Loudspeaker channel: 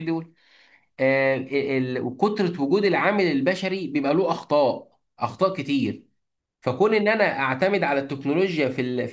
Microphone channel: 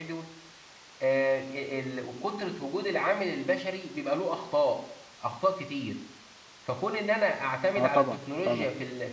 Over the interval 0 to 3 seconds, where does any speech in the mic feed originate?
echo only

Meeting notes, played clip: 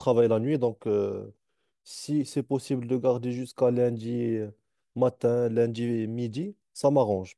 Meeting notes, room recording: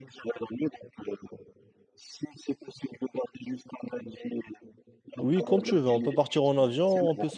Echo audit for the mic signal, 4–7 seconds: both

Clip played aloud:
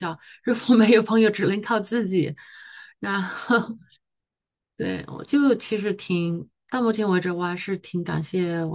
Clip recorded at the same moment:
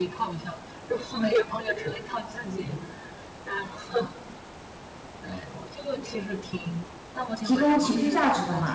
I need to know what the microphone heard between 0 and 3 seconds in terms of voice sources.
echo only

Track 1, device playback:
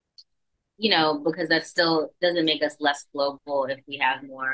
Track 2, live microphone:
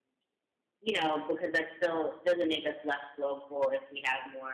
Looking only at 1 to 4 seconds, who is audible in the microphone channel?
echo only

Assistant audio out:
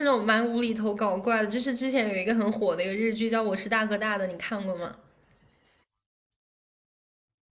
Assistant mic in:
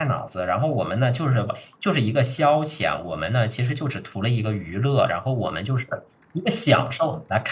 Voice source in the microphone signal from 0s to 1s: user only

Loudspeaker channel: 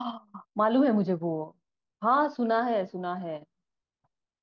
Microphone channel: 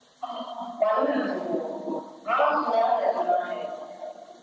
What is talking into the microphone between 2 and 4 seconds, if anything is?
echo only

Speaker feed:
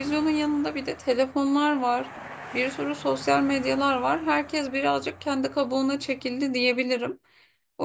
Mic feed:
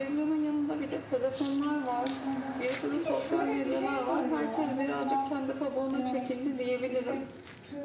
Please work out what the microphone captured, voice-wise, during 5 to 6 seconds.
both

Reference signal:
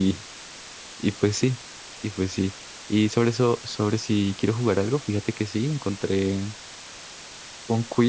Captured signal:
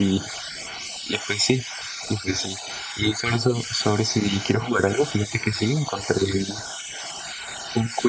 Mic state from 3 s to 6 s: echo only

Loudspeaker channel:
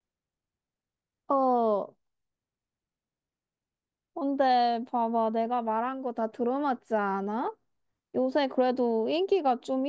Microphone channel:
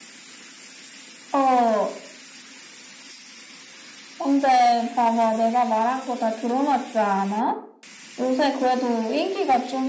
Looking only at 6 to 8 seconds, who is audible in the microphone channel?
echo only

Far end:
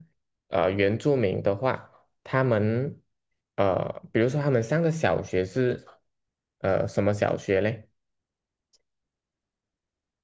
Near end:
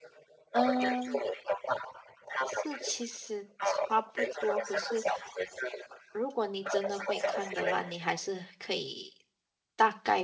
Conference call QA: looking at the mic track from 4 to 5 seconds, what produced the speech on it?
both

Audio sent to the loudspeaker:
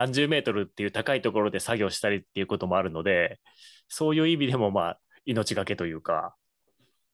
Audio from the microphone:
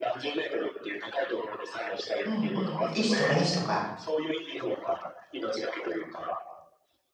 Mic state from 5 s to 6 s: echo only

